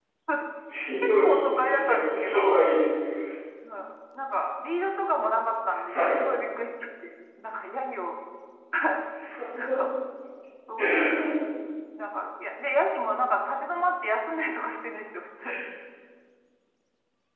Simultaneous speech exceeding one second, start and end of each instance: 1.2-2.6

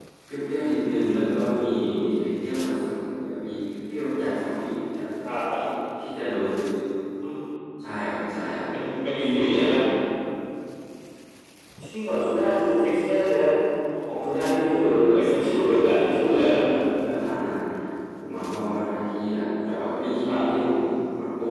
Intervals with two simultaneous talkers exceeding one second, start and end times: 14.8-16.6

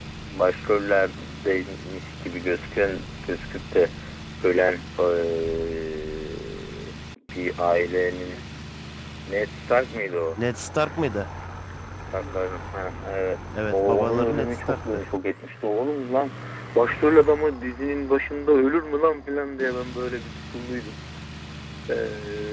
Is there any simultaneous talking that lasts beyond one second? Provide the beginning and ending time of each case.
13.7-15.0

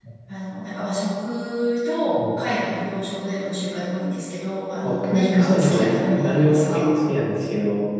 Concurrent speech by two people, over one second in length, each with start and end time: 4.8-6.9

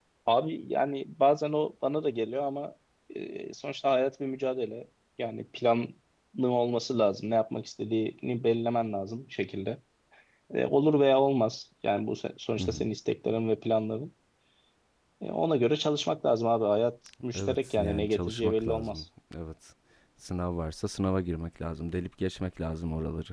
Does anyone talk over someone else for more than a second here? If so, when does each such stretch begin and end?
17.3-19.0

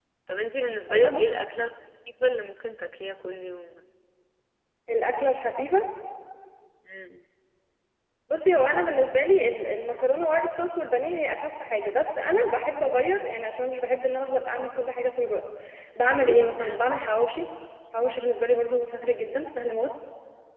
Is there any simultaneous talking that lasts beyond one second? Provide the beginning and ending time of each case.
none

